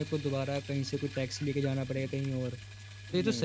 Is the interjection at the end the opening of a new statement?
No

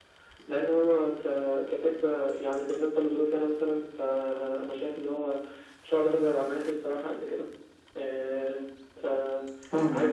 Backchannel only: Yes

